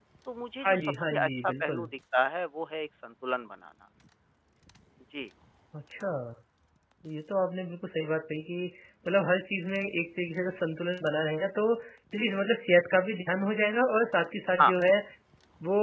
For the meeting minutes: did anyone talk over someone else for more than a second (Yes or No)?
Yes